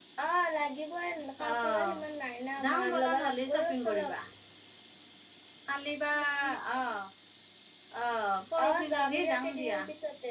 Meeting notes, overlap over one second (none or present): present